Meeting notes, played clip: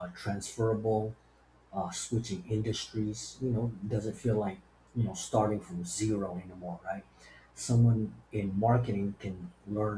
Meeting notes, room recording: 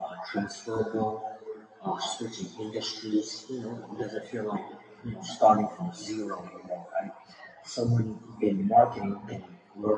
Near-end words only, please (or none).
none